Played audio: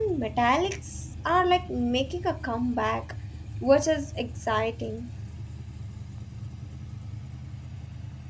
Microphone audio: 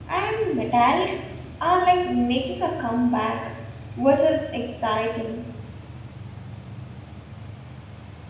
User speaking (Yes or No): No